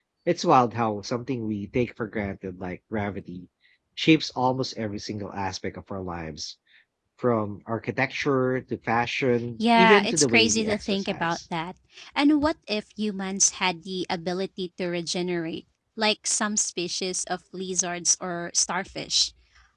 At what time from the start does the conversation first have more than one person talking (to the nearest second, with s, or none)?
10 s